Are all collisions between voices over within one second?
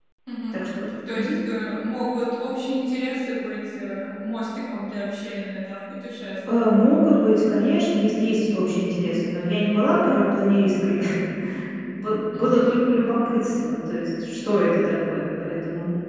Yes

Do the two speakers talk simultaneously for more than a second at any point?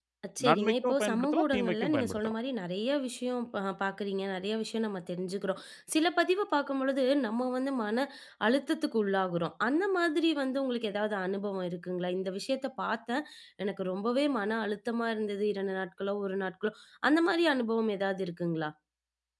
Yes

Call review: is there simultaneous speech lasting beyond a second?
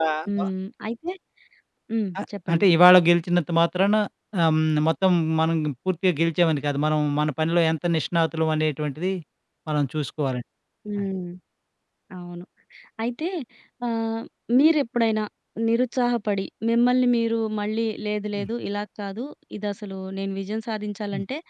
No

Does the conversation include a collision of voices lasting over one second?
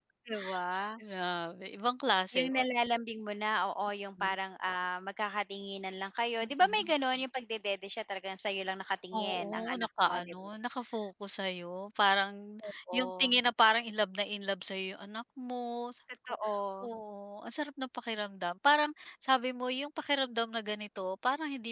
Yes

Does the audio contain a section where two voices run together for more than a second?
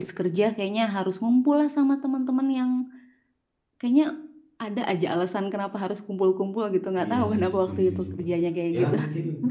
Yes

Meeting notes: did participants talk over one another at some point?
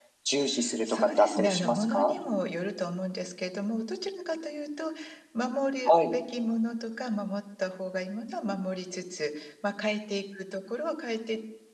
Yes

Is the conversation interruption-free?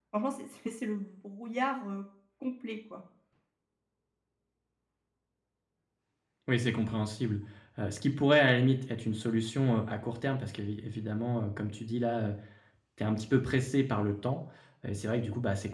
Yes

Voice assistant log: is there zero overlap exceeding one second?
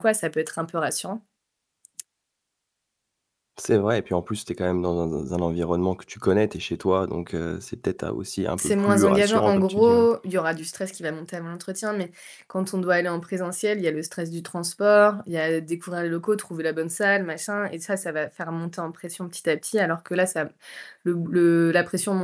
No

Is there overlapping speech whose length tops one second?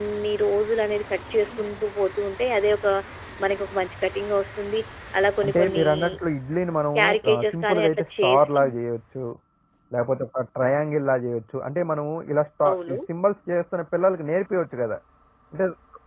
Yes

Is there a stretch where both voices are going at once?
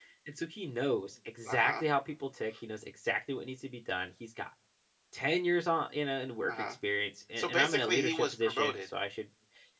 Yes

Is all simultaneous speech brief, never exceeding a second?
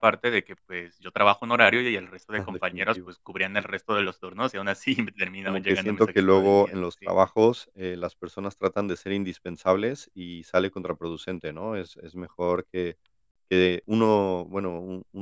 No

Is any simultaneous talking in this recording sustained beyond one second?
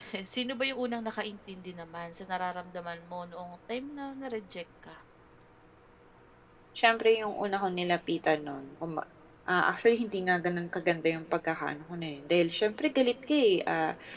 No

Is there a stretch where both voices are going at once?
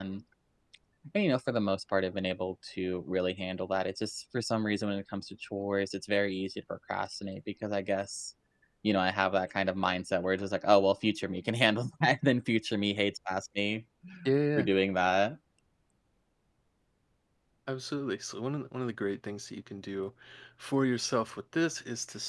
No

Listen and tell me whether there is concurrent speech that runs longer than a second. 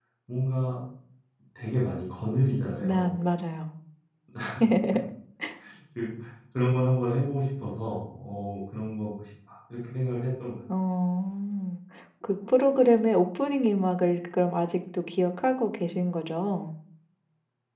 No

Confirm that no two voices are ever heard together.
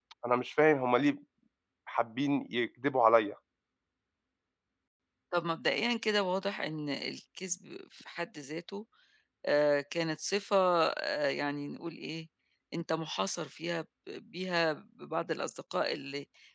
Yes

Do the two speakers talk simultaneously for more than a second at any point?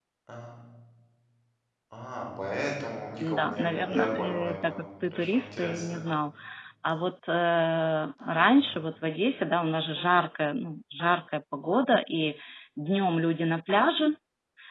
Yes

